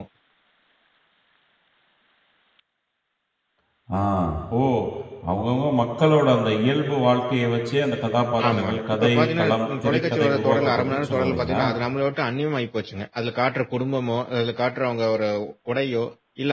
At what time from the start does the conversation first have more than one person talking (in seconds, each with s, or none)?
8.4 s